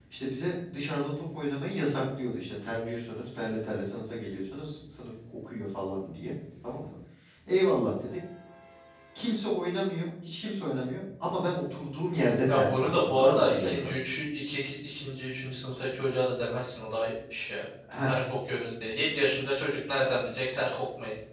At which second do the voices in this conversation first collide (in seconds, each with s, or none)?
12.5 s